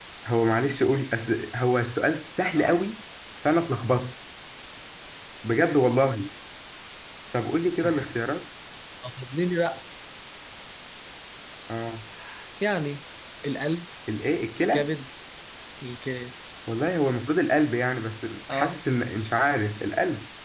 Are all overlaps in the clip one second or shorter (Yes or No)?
Yes